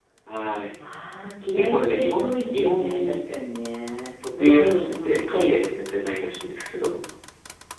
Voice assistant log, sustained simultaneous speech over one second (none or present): present